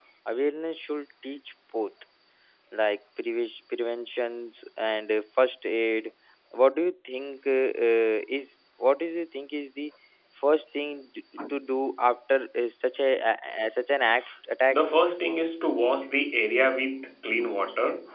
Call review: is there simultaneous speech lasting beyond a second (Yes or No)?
No